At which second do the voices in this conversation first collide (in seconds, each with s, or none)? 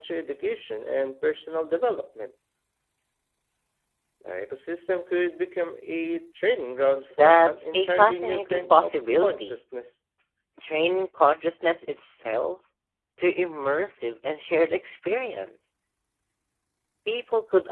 7.2 s